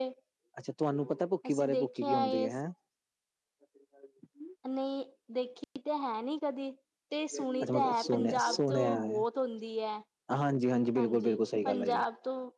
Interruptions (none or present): present